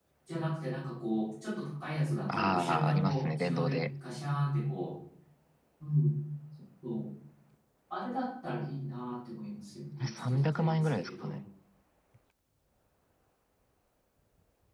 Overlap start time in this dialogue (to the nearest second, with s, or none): 2 s